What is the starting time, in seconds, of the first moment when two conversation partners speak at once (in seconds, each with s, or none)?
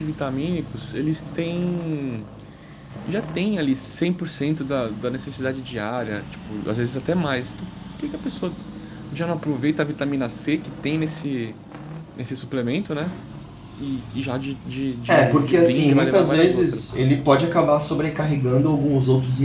15.1 s